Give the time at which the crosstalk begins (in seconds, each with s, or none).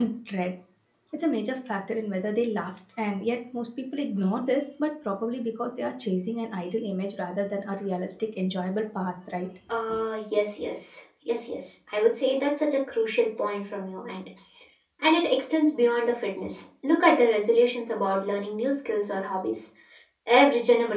none